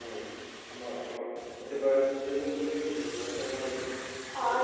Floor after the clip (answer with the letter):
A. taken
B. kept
A